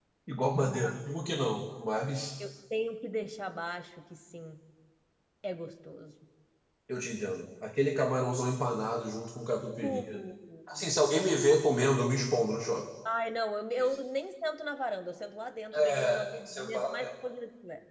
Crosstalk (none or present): present